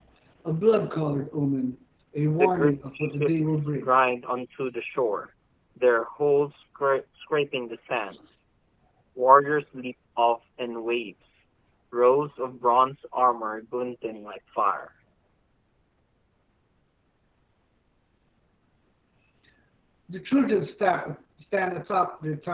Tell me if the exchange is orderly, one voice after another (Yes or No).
No